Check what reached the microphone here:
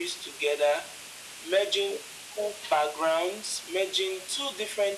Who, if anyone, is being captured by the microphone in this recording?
echo only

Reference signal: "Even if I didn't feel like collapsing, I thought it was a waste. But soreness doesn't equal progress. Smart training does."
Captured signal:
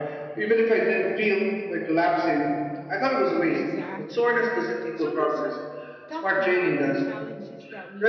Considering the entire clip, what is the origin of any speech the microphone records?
both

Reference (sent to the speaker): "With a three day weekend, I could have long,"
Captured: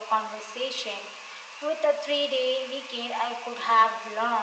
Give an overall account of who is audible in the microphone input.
echo only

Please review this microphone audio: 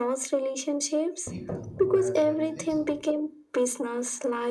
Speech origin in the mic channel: both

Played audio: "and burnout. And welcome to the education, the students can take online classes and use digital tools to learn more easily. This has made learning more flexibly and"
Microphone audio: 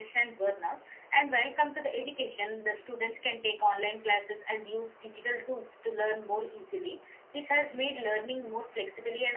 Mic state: echo only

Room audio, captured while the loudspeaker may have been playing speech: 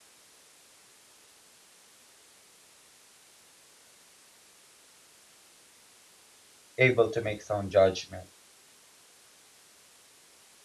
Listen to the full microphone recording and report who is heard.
user only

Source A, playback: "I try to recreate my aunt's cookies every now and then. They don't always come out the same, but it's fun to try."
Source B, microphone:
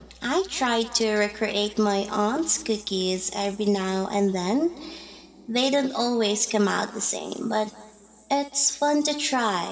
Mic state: echo only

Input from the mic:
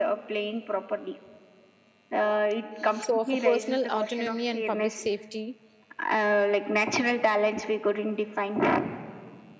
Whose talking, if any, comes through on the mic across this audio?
both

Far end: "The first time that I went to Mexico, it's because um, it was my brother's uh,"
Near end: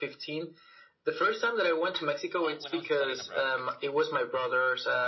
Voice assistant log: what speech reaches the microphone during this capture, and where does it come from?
both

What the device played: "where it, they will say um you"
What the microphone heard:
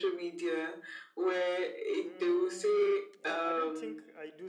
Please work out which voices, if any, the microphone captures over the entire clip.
both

